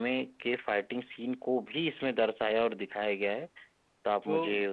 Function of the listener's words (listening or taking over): taking over